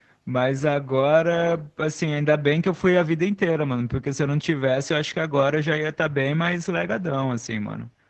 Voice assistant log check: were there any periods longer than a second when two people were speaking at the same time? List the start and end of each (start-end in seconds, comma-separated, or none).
none